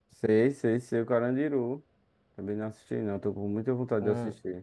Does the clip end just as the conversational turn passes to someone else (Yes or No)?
Yes